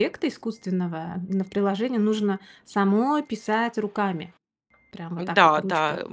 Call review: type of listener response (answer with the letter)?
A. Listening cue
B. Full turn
B